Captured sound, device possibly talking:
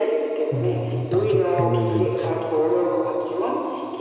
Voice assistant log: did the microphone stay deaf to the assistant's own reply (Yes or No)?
No